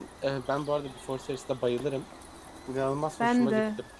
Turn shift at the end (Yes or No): No